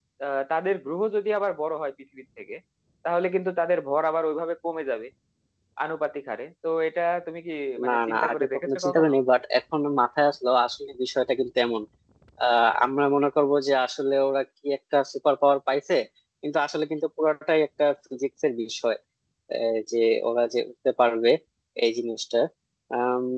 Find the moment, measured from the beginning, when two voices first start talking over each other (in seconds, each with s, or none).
7.8 s